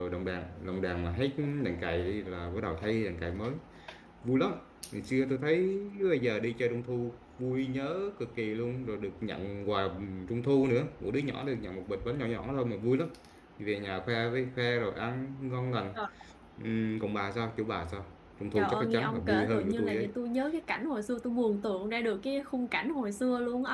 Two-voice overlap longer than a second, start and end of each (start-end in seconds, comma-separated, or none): 18.6-20.1